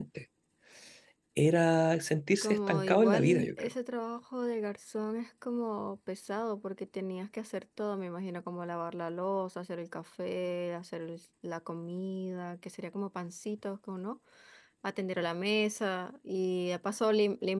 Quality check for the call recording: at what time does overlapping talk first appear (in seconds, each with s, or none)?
2.4 s